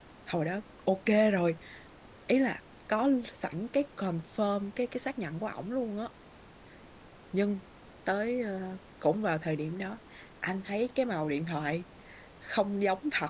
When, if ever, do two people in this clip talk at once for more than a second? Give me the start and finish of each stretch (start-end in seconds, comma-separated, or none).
none